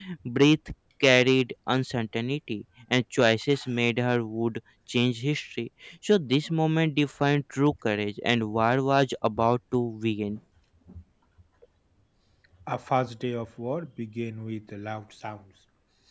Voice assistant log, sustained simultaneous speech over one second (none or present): none